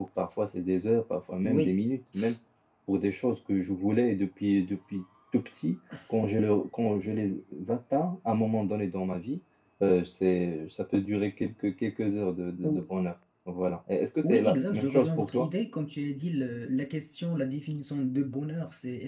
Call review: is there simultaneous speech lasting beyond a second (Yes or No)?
Yes